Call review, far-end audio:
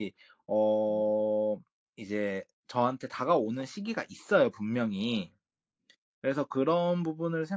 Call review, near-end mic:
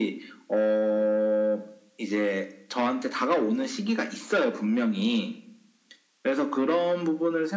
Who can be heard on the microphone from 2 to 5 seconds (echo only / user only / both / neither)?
echo only